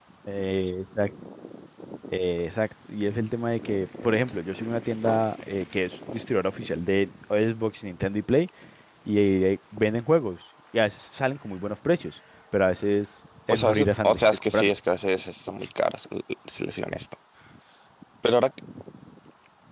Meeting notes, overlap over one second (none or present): present